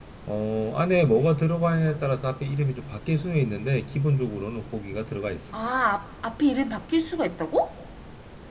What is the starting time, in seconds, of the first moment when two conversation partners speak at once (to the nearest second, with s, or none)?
none